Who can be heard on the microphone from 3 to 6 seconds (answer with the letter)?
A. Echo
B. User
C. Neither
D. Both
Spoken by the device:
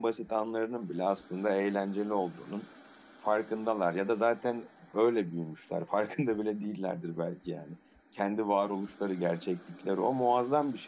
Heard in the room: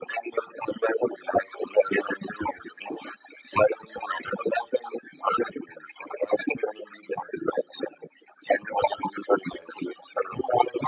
A